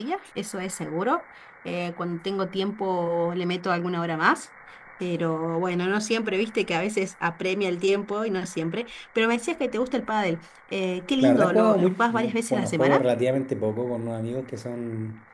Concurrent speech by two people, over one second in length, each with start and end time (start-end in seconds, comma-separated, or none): 11.2-13.0